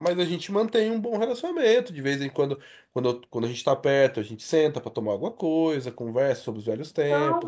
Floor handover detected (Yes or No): Yes